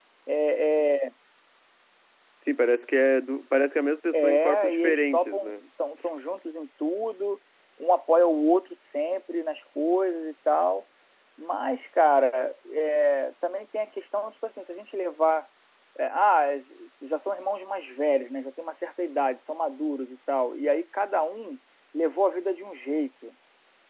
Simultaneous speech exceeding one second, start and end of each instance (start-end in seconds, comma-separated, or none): 4.1-5.5